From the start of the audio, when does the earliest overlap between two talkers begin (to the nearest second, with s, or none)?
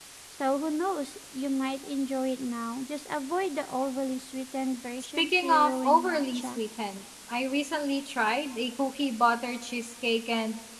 5 s